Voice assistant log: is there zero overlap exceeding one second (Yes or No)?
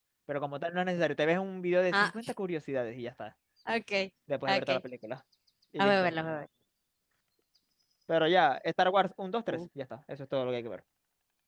Yes